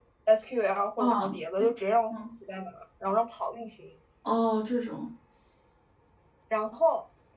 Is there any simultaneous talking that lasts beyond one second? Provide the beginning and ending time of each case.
none

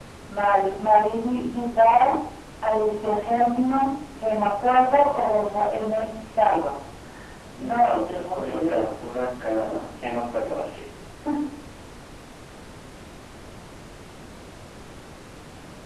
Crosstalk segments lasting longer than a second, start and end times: 7.6-8.8

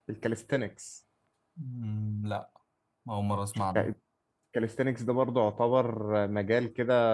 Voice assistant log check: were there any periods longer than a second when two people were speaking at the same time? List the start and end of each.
none

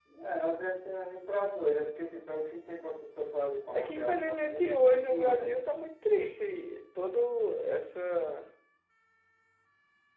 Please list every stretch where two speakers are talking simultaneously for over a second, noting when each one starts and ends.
3.7-5.5

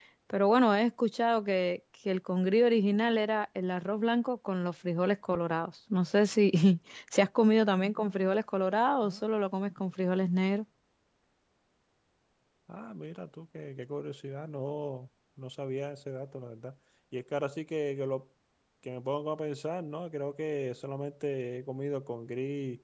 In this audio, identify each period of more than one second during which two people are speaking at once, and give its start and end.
none

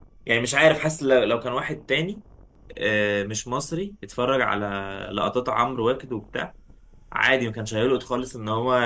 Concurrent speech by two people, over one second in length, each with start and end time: none

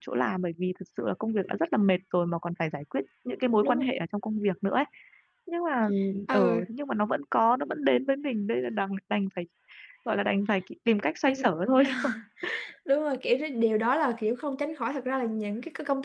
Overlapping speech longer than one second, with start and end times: none

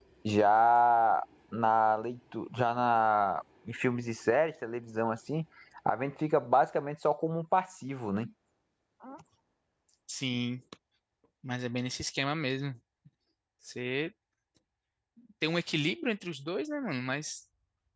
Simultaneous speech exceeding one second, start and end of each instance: none

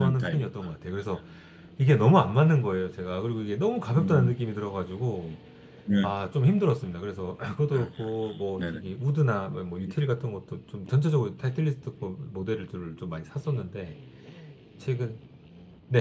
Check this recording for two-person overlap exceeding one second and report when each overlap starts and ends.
none

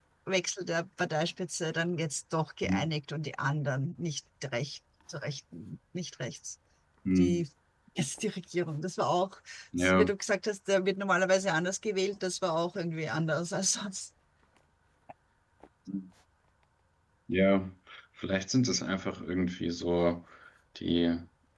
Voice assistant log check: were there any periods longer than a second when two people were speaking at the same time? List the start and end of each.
none

